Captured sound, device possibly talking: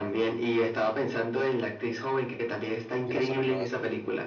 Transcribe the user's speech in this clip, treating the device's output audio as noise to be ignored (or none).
que nosotros no,